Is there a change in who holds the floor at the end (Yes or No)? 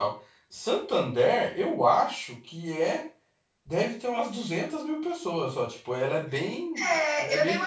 Yes